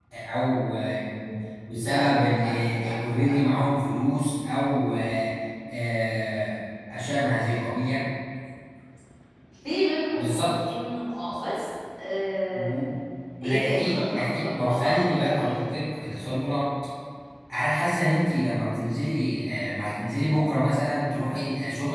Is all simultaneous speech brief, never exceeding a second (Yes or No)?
No